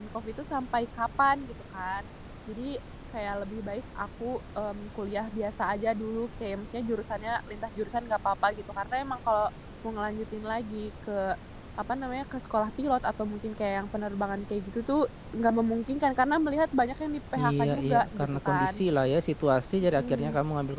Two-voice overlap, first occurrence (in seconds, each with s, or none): 17.4 s